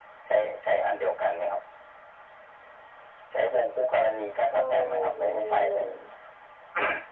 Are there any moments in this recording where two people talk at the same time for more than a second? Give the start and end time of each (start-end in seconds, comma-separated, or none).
4.5-5.9